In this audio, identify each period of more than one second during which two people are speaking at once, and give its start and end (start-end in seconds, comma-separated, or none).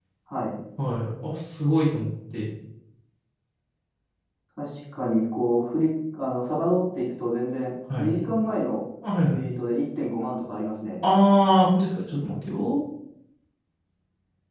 none